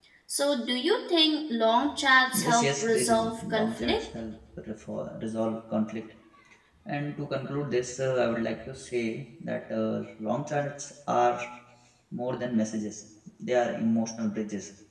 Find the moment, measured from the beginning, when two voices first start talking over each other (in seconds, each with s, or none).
2.4 s